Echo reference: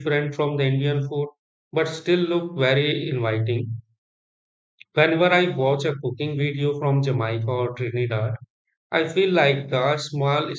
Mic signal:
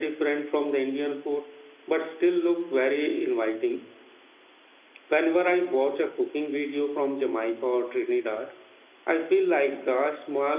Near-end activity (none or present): none